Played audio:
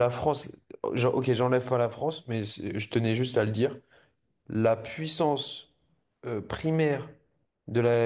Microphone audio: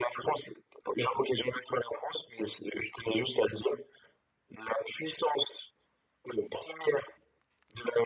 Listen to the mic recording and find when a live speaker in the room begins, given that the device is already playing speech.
none

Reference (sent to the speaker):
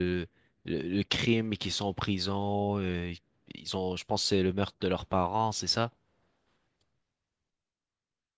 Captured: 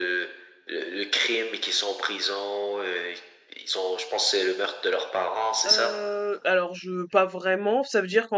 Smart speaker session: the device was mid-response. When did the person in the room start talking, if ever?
5.7 s

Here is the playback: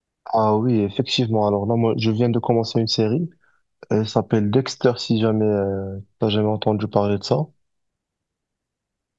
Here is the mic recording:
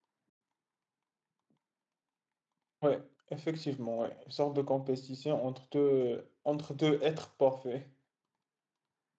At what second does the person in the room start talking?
2.8 s

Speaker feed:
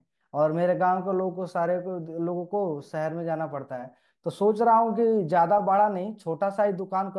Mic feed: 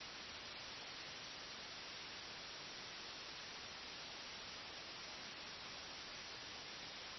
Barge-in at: none

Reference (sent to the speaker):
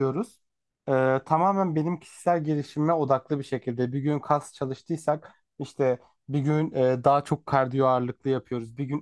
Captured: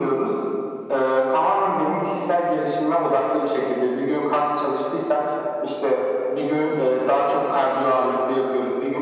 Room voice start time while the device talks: none

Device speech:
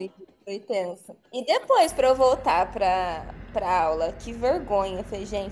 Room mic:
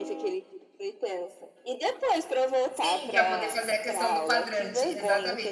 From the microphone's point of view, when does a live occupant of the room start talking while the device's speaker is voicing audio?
2.8 s

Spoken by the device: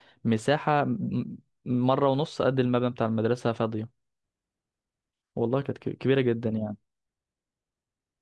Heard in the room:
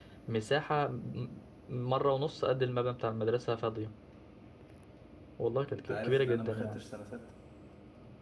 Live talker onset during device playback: 5.7 s

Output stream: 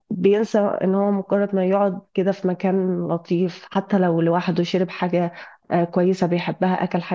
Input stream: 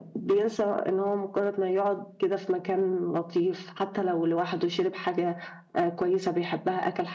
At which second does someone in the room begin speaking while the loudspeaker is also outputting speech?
none

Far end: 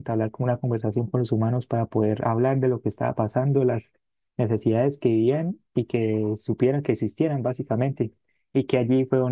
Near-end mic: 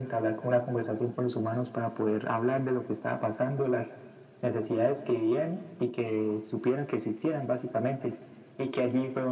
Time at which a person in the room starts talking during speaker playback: none

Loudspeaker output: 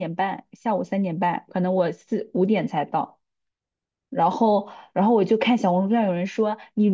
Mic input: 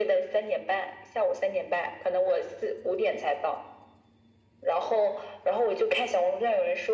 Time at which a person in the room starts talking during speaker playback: none

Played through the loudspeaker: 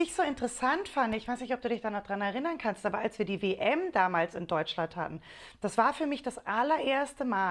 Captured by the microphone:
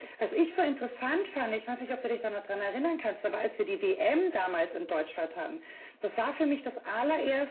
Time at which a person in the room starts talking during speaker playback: none

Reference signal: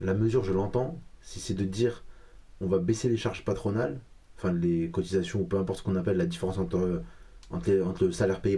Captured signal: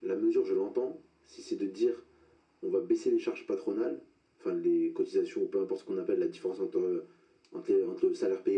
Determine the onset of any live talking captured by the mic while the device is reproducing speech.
none

